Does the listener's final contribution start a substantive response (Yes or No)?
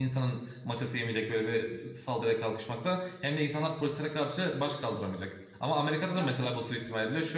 No